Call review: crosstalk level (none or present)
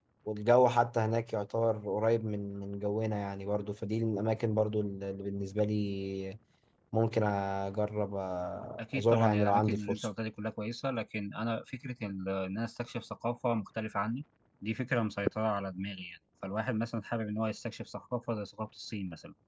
present